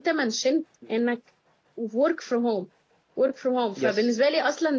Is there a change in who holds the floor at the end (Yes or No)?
No